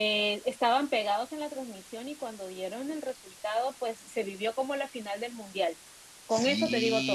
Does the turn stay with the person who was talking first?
No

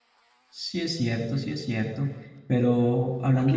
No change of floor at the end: No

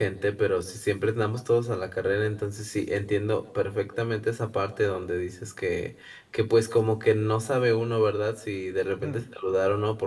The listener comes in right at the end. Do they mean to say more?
No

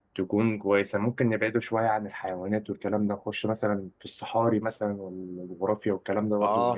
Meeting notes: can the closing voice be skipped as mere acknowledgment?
No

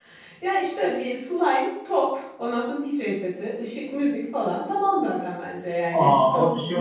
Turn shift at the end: Yes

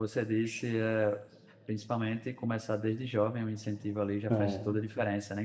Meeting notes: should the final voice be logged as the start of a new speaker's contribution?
No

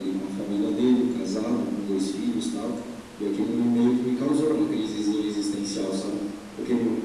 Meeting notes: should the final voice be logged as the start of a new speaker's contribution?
No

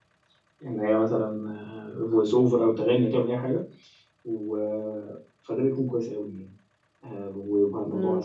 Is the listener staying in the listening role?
No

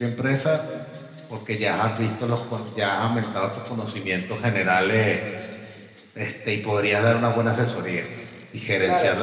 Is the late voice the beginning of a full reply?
No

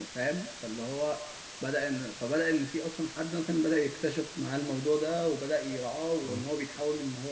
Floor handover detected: No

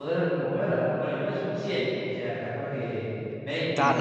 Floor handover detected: Yes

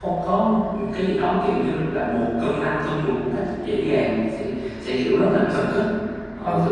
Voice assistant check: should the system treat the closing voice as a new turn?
No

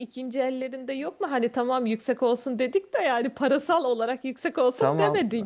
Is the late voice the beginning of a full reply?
Yes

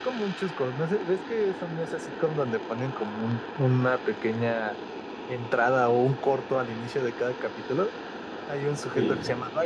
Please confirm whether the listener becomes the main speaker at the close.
No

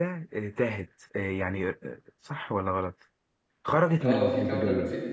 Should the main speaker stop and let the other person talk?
Yes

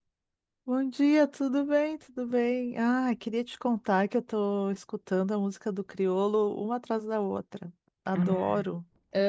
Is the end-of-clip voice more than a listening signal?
Yes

